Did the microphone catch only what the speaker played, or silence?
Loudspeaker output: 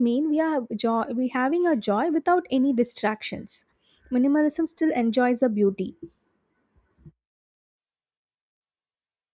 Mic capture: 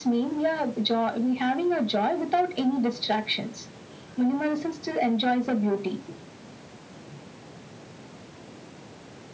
Yes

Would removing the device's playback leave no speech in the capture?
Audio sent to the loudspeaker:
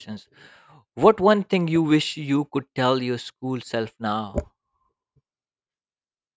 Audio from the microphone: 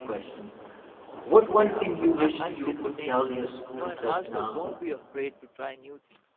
No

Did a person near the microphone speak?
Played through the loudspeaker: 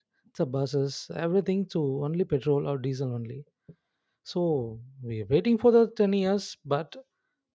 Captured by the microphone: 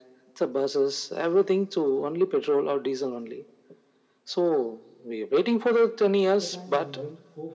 Yes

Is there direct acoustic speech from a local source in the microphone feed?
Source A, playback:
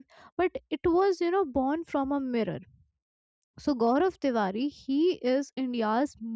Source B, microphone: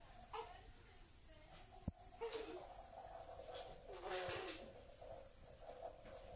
No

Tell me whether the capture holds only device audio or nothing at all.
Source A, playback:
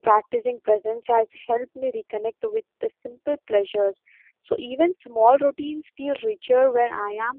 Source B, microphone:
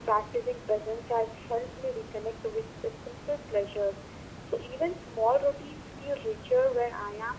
Yes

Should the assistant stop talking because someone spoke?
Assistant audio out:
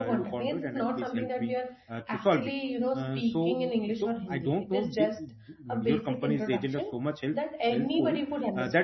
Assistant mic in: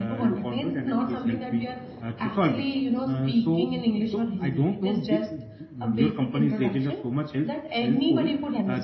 No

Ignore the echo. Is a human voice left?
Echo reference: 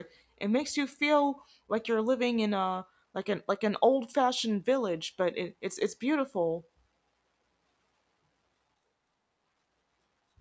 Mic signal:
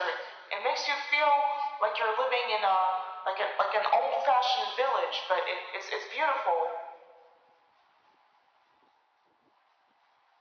No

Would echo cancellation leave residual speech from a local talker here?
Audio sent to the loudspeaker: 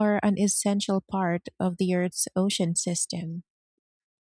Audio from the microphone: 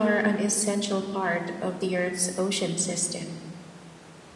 No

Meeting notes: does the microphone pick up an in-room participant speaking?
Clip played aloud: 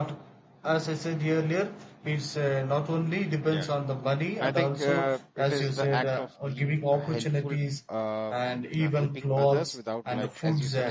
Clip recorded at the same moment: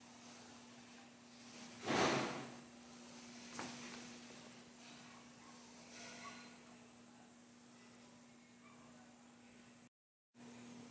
No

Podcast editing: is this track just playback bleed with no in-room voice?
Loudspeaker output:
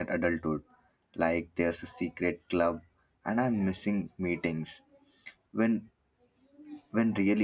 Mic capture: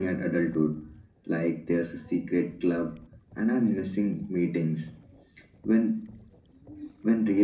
Yes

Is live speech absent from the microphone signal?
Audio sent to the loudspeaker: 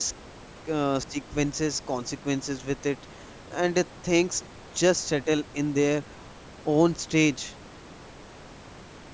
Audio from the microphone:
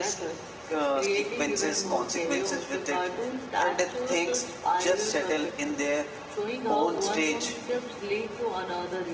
No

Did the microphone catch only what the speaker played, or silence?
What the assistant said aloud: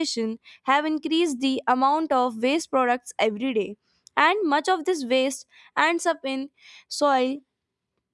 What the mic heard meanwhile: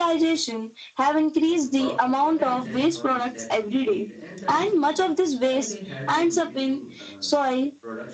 No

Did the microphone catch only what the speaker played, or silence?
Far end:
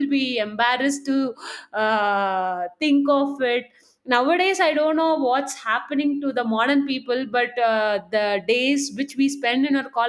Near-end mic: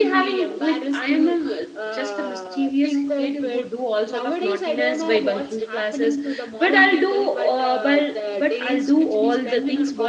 No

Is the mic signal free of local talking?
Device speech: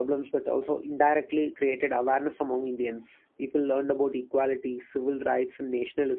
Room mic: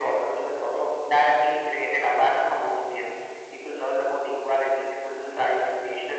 Yes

